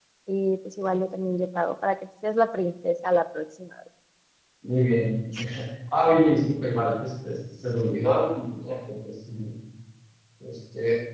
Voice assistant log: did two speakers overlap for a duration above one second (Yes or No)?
No